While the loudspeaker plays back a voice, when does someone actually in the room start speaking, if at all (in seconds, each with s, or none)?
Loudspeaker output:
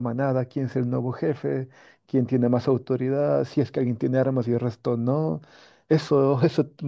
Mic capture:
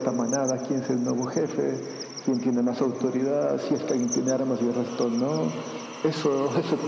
none